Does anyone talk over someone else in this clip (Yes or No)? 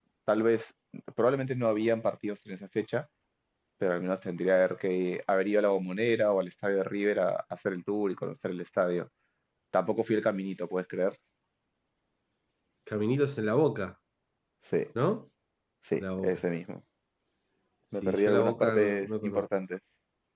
Yes